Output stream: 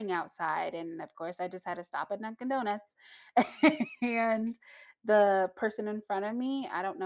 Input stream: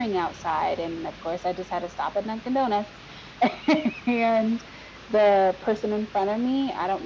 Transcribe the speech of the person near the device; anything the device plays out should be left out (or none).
none